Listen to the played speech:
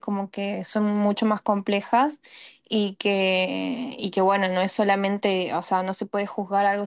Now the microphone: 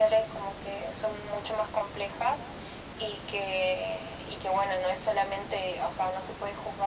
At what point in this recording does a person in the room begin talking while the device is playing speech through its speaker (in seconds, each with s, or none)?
none